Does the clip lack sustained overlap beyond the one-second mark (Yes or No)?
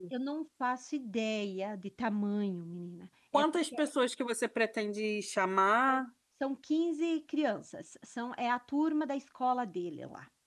Yes